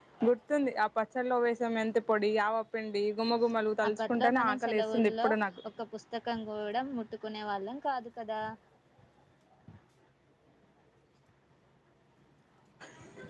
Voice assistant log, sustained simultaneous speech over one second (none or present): present